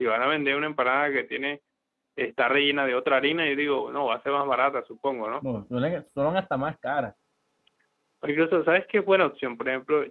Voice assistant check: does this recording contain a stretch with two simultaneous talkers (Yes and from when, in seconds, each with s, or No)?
No